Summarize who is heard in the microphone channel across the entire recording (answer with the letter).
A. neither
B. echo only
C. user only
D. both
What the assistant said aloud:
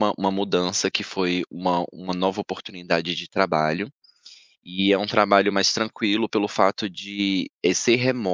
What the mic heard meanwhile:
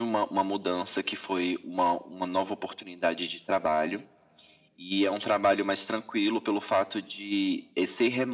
B